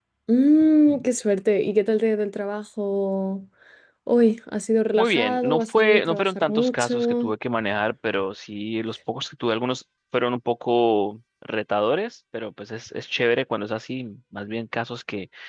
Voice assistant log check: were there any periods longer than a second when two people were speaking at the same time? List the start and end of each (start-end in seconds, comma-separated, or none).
5.0-7.3